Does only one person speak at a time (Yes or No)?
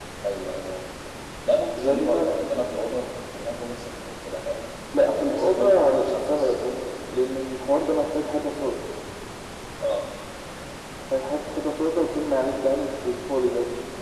No